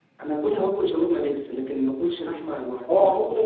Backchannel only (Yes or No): No